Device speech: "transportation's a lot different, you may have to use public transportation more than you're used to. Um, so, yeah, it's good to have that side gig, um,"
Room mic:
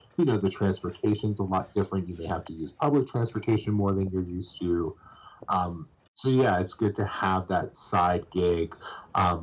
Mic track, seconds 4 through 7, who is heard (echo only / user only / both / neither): echo only